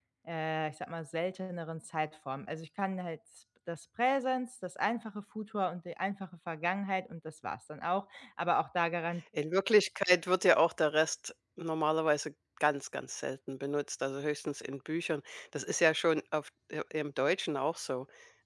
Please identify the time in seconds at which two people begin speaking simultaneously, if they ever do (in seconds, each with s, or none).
none